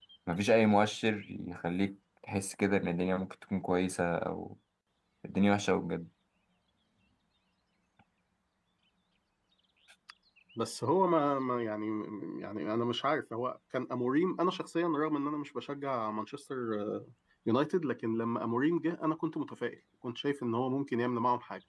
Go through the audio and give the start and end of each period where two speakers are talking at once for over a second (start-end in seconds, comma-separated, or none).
none